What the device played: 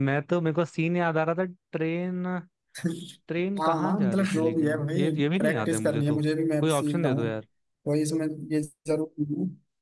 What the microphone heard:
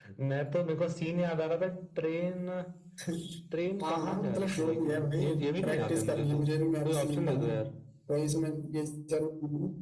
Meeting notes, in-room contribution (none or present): none